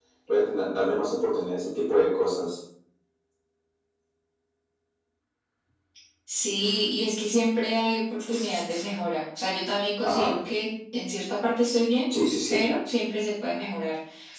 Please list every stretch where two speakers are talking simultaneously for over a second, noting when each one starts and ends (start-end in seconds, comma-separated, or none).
none